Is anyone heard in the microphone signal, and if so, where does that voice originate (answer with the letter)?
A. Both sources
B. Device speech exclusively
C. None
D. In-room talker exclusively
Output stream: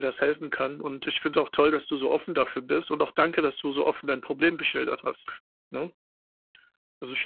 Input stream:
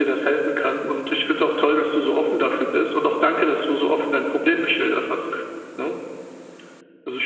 B